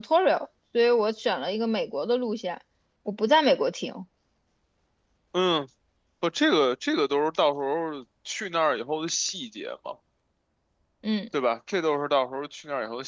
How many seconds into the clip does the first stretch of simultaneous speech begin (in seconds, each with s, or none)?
none